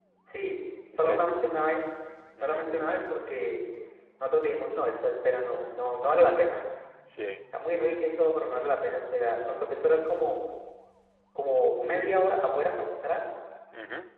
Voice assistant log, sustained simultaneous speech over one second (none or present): none